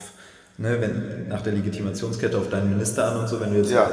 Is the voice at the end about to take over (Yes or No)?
No